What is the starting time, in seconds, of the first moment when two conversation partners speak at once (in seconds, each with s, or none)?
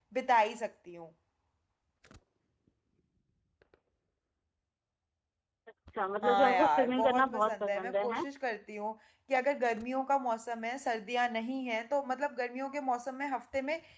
6.2 s